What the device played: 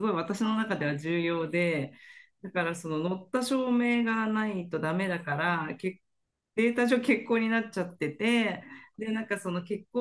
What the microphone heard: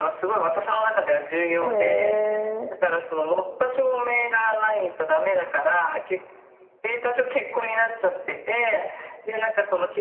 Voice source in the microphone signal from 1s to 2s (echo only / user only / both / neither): both